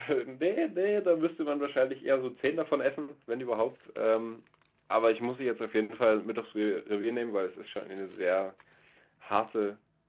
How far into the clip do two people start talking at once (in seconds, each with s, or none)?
none